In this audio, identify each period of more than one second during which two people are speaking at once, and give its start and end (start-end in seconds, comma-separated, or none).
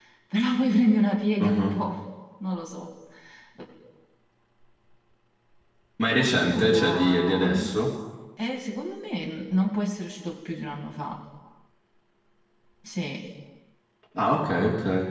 6.2-7.8